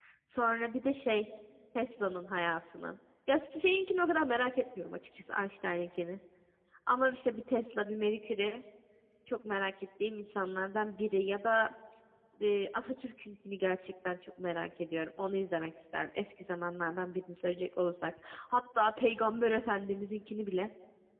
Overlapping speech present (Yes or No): No